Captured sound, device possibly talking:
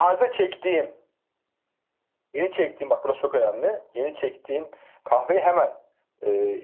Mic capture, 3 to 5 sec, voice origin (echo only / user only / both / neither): echo only